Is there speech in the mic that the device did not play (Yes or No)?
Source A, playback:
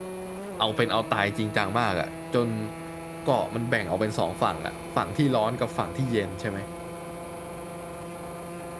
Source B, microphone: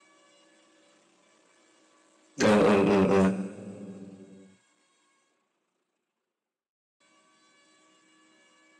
Yes